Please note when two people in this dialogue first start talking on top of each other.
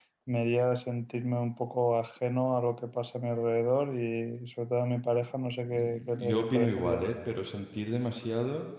5.7 s

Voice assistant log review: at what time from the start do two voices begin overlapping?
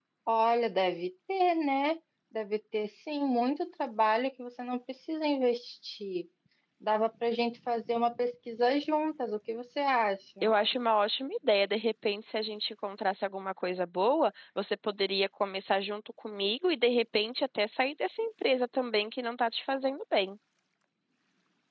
none

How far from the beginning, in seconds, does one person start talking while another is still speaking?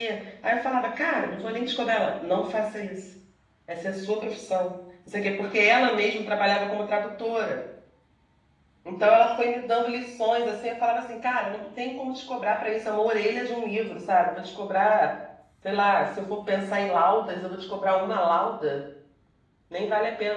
none

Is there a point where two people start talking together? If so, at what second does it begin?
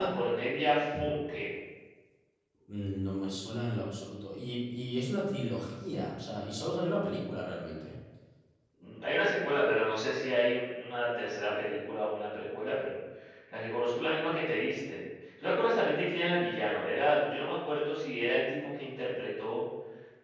none

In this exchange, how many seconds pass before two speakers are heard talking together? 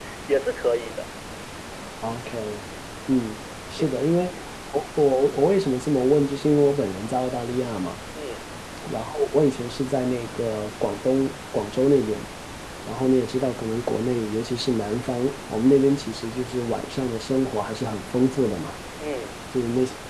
none

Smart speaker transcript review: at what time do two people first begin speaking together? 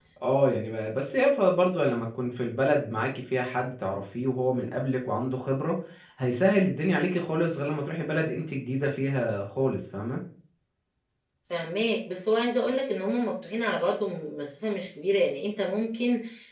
none

